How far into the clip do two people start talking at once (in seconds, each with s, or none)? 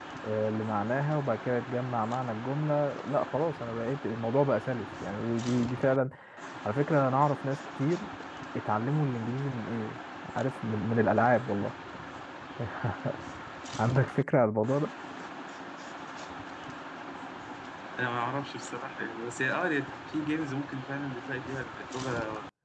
none